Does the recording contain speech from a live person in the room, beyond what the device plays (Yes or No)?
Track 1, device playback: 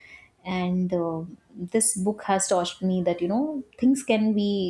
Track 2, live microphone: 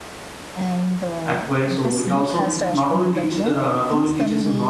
Yes